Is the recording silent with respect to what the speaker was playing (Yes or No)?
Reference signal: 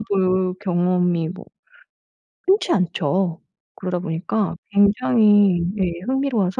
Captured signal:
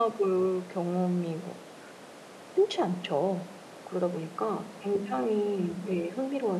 No